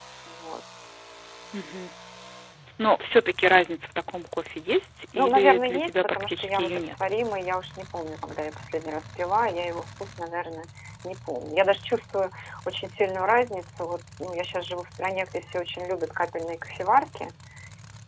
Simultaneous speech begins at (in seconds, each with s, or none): 5.2 s